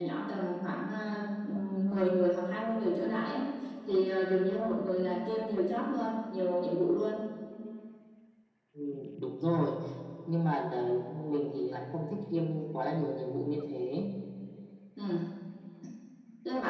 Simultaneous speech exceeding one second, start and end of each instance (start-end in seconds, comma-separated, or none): none